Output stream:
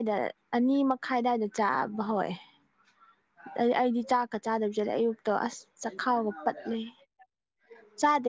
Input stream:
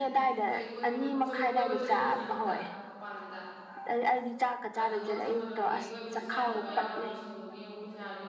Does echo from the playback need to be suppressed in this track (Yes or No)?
Yes